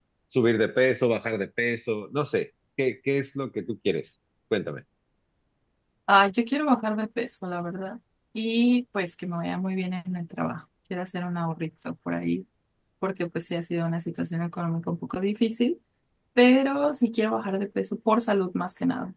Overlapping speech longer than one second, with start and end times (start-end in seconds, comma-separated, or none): none